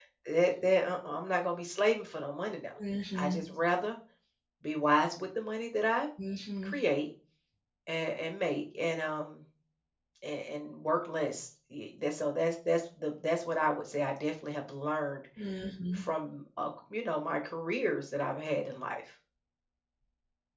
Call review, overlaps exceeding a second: none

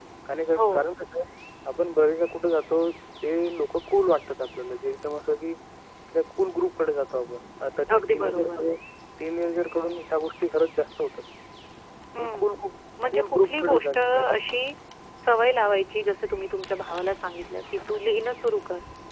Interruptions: present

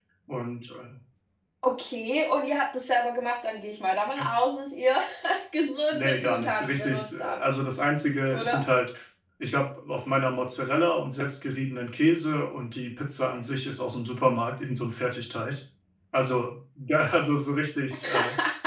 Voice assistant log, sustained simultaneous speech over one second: present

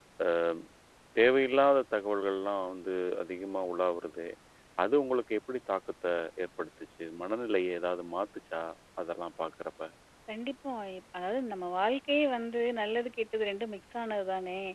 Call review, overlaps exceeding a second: none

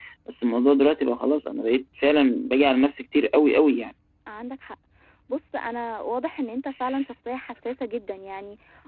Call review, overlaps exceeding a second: none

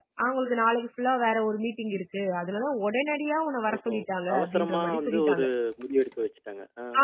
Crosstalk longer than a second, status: present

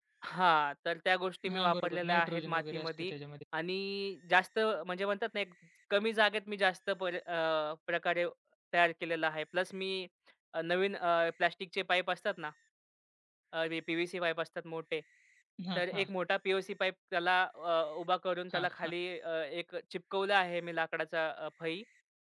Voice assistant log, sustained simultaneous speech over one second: present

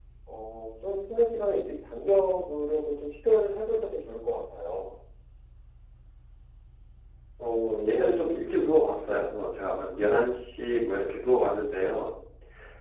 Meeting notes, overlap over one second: none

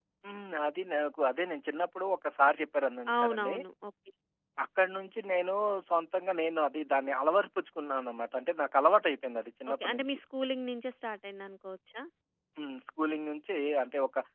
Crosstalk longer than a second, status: none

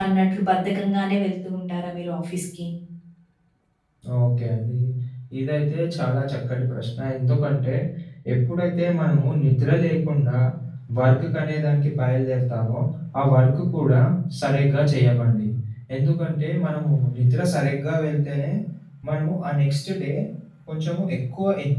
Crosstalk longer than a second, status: none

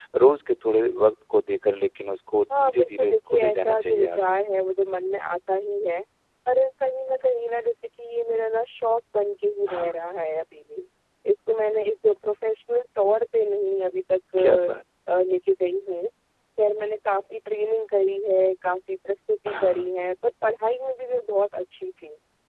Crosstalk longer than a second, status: present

